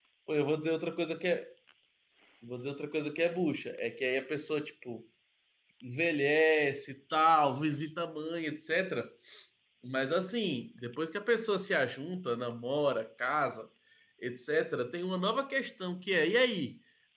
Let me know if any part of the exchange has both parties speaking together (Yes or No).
No